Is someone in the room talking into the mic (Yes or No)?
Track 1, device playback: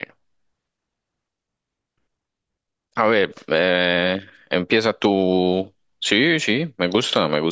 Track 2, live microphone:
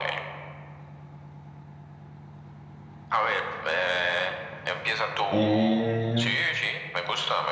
Yes